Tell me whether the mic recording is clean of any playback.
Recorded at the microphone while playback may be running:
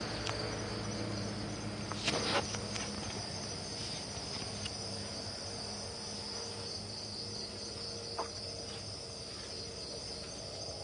Yes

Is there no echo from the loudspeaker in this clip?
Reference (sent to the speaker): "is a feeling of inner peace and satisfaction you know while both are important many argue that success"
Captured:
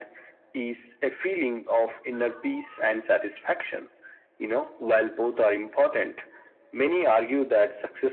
No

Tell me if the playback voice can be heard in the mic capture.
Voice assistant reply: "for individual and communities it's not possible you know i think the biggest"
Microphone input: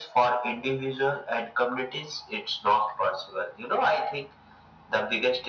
Yes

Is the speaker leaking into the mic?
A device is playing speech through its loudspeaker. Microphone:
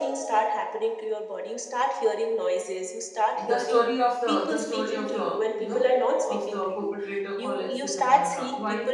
Yes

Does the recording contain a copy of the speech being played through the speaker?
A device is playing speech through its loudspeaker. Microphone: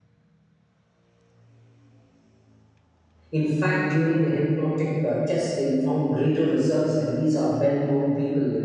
No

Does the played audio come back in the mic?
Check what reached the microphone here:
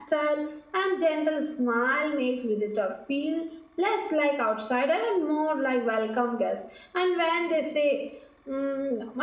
No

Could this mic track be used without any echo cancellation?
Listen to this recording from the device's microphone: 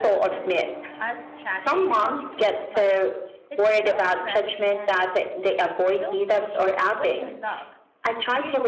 No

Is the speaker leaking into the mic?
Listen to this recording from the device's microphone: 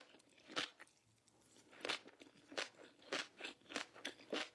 No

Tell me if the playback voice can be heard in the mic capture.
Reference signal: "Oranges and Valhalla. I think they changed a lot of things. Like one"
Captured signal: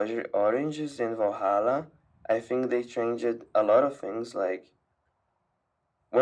Yes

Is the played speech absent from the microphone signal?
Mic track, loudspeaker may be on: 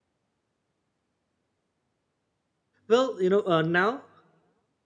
Yes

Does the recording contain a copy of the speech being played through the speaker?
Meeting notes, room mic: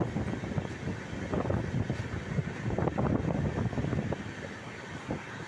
No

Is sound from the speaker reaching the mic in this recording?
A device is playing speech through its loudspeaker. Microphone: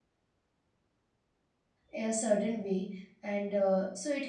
No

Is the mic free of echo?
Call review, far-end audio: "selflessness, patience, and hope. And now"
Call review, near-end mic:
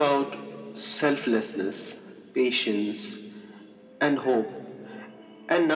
No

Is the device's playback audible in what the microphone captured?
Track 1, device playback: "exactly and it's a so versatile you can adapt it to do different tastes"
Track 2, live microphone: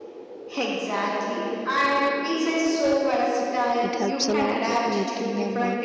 Yes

